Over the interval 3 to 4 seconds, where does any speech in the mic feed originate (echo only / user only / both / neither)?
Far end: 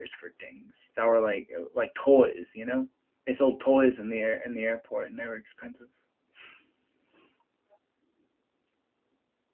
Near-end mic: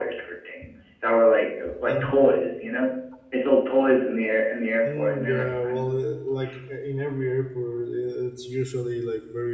echo only